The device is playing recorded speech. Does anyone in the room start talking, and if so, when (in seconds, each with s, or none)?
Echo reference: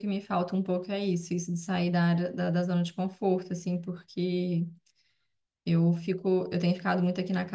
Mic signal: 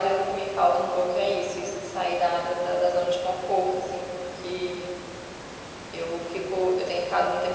none